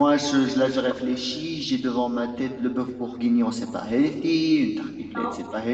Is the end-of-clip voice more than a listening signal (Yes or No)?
No